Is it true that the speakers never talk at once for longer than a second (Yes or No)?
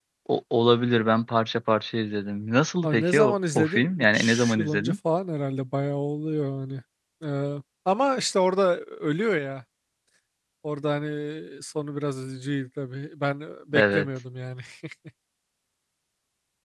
No